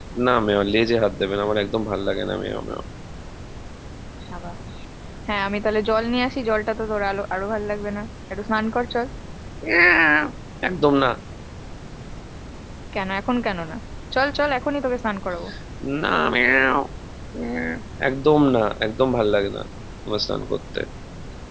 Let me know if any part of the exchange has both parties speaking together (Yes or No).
No